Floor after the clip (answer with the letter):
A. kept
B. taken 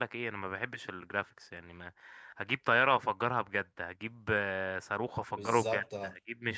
A